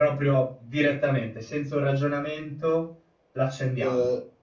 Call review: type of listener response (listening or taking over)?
taking over